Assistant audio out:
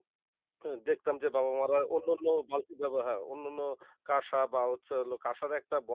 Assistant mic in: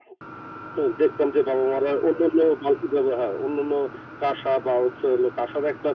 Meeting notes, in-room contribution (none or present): none